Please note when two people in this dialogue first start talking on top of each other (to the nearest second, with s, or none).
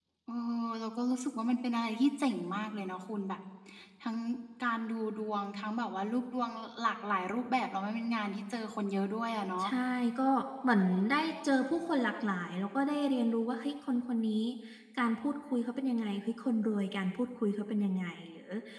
none